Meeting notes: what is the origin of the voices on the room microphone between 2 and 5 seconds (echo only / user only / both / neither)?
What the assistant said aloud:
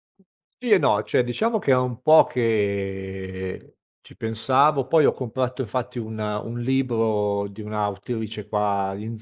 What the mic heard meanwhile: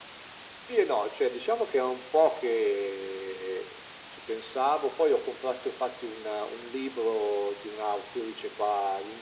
echo only